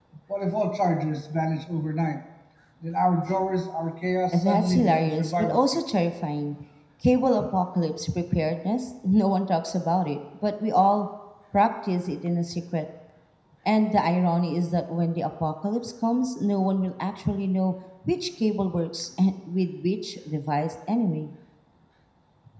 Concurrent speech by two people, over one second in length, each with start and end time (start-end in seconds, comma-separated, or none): 4.3-5.8